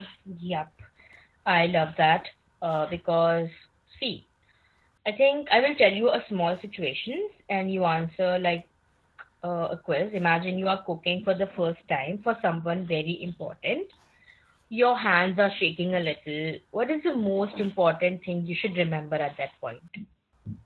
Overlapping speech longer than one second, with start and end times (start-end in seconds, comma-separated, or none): none